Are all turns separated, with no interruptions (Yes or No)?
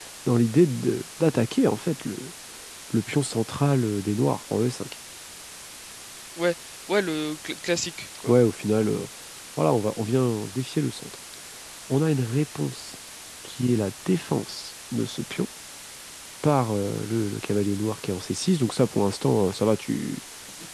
Yes